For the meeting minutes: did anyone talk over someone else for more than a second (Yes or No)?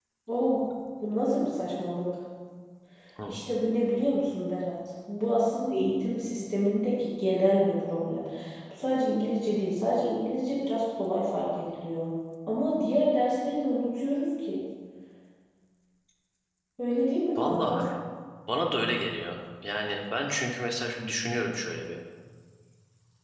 No